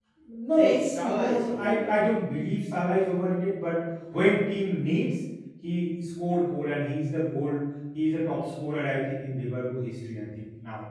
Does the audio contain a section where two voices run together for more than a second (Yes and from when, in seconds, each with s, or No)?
Yes, from 0.6 s